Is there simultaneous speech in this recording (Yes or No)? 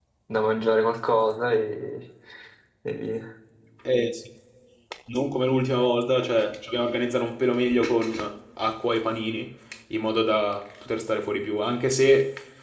No